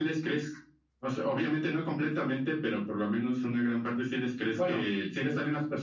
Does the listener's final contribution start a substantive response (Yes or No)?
No